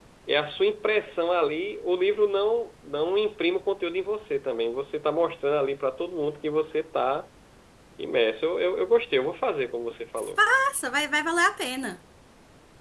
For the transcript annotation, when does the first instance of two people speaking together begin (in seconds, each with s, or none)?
none